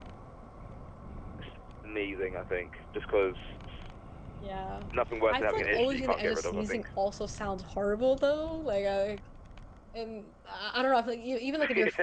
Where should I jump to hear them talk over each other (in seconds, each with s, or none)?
5.3 s